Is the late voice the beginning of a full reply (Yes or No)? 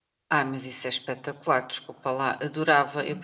No